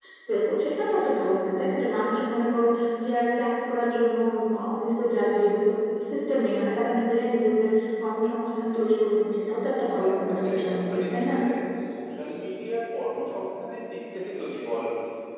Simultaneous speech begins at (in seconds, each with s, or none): 10.0 s